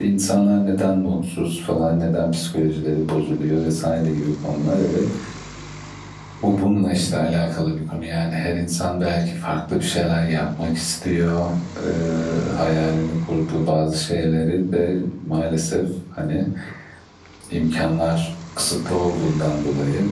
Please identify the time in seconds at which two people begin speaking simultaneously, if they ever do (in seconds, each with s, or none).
none